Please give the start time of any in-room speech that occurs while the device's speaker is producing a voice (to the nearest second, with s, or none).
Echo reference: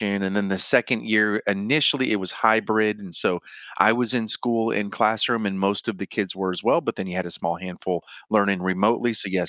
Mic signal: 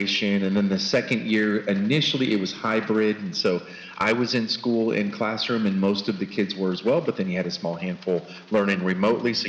none